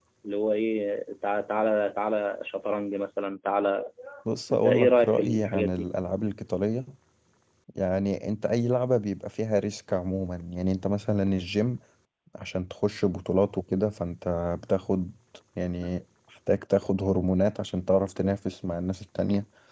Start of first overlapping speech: 4.5 s

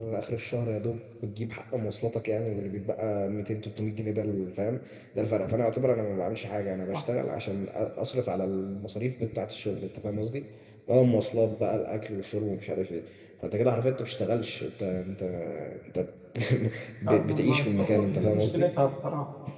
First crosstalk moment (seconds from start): 17.0 s

